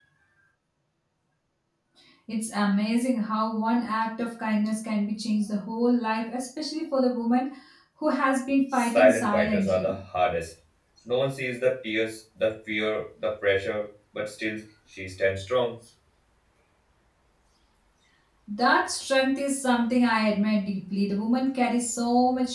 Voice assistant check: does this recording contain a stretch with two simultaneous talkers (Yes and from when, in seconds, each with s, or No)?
Yes, from 8.7 s